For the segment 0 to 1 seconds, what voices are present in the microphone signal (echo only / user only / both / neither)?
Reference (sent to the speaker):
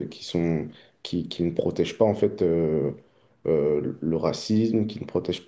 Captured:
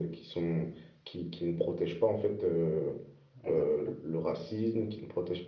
echo only